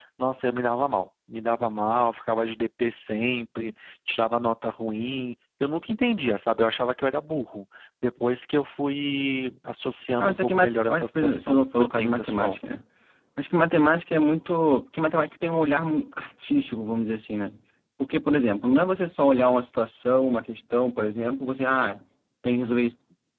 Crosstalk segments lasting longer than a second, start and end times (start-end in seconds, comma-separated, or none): 10.2-12.6